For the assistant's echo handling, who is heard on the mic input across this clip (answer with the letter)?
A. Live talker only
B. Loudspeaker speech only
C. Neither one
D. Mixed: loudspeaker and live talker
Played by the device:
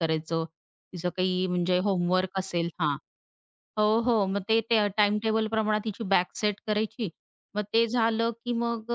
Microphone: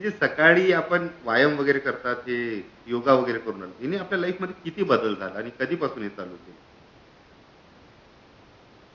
A